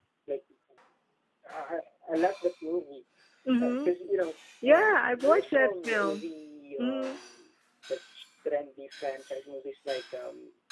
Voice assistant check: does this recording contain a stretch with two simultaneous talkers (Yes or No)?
Yes